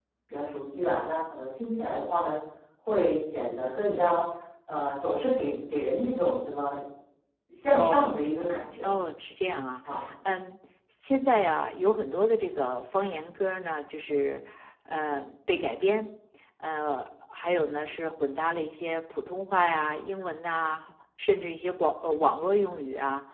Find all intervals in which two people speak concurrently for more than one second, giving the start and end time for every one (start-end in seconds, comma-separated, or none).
none